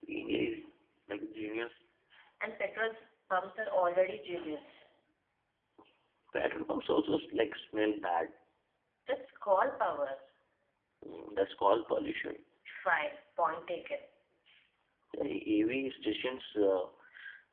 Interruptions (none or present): none